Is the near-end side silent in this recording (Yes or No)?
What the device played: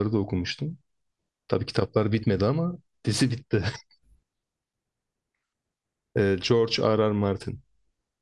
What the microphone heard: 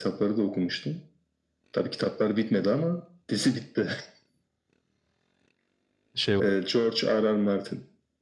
No